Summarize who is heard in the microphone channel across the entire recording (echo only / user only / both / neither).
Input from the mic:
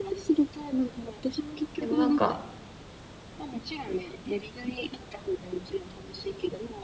both